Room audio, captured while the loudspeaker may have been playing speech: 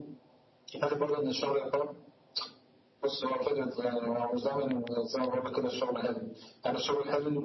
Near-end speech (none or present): none